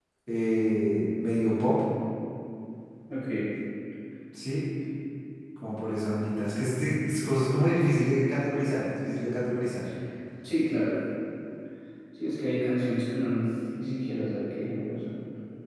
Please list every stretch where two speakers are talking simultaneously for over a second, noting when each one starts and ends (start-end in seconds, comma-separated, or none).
none